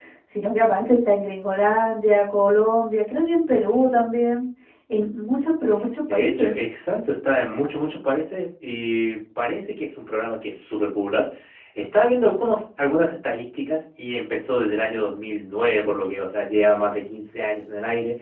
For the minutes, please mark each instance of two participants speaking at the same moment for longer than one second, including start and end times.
none

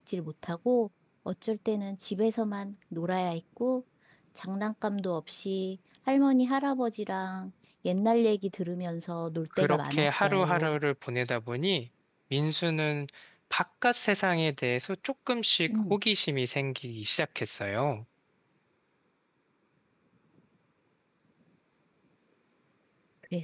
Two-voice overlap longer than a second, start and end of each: 9.6-10.8

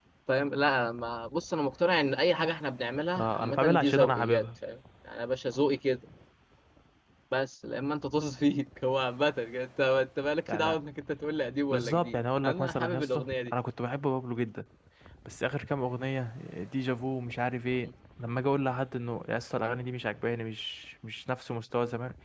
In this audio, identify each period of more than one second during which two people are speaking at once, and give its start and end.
3.2-4.4, 11.7-13.5

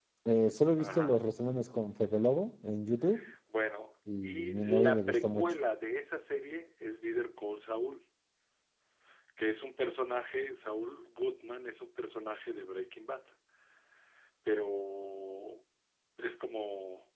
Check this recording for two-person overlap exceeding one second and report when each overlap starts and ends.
4.2-5.5

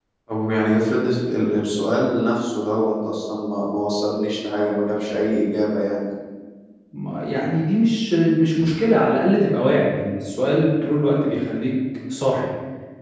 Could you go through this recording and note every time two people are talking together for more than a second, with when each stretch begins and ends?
none

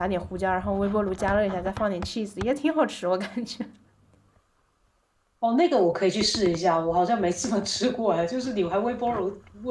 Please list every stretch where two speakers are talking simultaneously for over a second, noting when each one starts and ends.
none

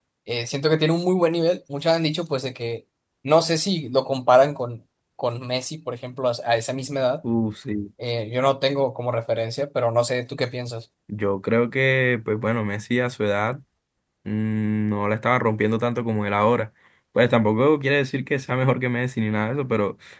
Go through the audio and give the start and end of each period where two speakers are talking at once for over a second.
none

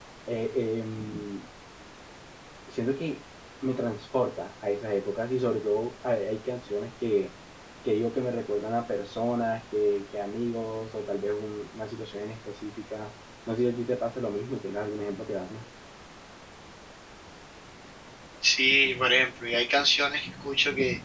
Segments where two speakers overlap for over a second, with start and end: none

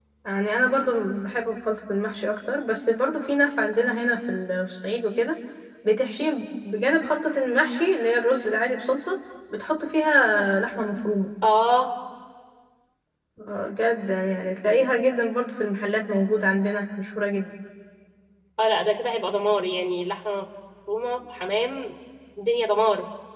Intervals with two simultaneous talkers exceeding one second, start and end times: none

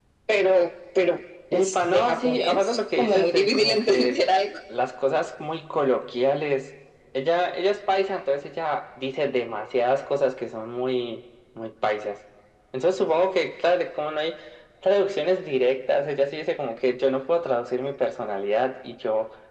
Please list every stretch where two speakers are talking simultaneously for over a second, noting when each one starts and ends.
1.5-4.2

